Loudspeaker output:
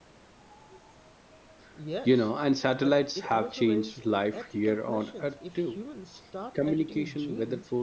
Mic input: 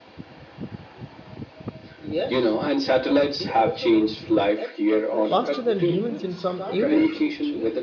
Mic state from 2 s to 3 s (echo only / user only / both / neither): echo only